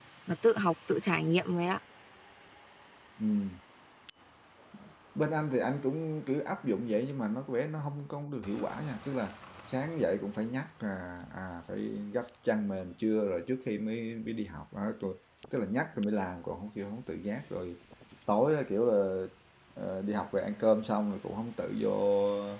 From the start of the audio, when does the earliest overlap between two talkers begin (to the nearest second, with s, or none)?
none